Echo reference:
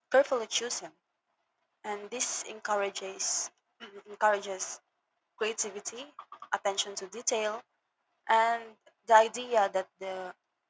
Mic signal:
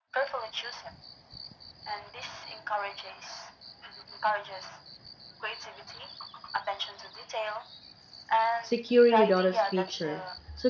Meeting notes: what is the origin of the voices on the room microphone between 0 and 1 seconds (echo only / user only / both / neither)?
echo only